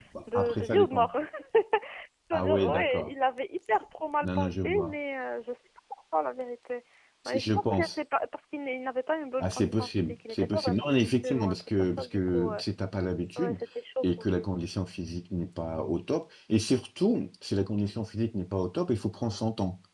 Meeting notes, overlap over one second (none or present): present